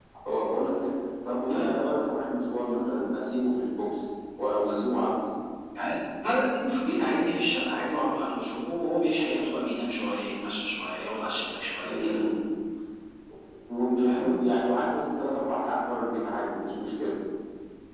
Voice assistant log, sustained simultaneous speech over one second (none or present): none